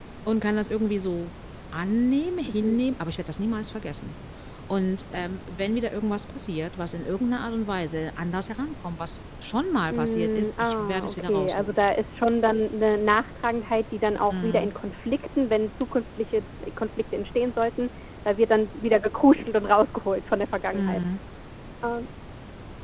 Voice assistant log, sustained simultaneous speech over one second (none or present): present